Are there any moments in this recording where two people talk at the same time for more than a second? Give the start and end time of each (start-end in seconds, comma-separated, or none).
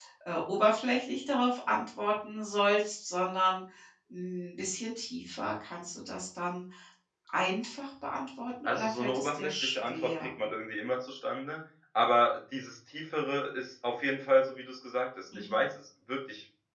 8.6-10.3